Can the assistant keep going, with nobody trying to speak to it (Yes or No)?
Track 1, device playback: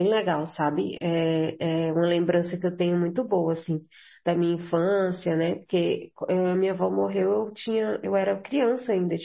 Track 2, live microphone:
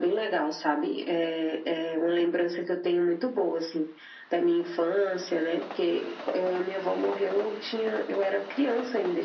Yes